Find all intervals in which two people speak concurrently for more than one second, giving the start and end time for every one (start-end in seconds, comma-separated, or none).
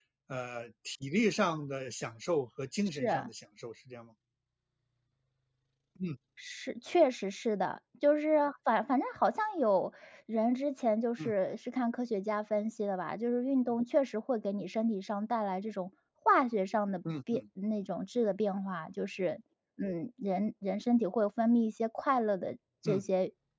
none